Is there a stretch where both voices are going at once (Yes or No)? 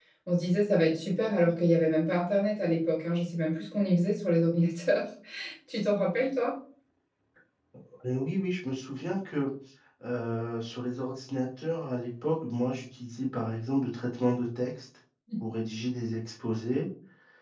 No